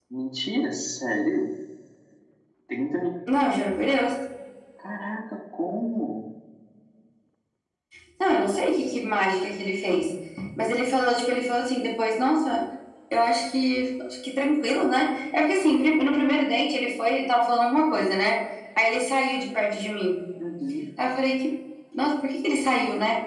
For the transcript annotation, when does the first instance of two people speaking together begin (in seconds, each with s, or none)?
none